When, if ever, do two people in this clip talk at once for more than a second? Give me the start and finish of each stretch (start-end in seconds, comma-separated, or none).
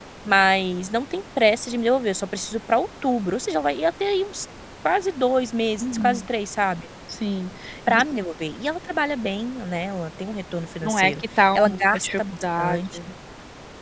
10.8-13.0